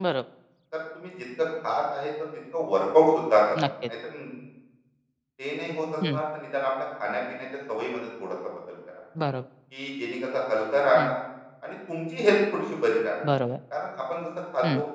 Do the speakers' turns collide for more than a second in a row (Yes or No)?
No